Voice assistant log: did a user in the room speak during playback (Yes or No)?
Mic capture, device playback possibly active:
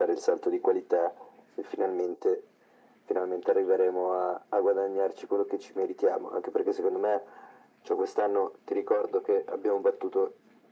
No